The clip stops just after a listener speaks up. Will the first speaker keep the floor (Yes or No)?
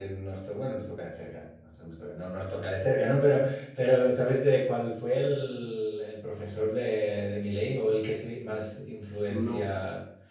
Yes